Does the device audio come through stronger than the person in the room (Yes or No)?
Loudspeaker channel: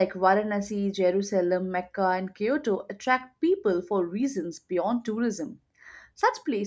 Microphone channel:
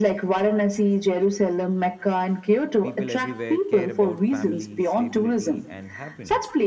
Yes